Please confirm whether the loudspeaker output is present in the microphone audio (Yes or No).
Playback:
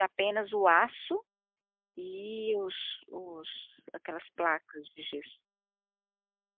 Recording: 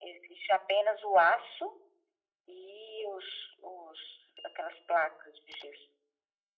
Yes